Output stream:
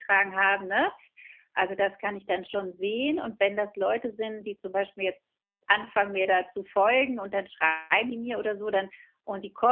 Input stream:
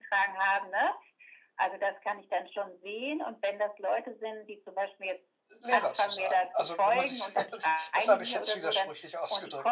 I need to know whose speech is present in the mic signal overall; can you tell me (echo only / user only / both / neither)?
both